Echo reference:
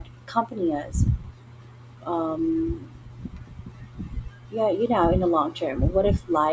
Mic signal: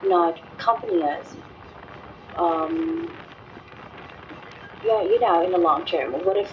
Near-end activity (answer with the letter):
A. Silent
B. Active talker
A